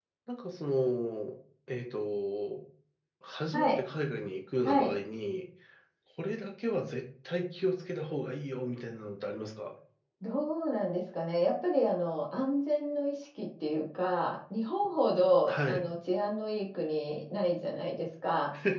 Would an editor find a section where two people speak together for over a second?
No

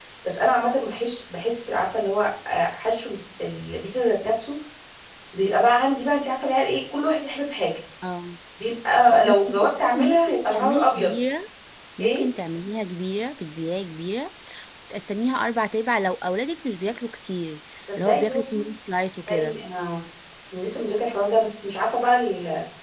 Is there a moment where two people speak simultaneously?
Yes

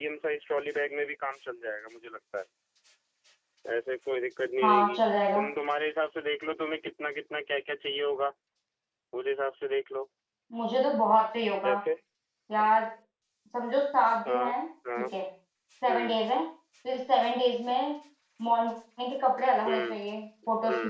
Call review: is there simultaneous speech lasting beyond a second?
No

